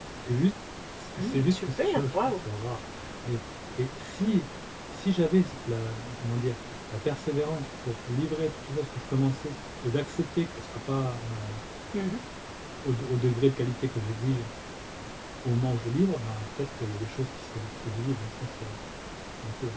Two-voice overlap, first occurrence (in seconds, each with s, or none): 1.2 s